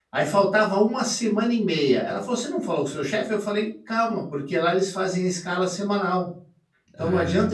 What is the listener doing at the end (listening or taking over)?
listening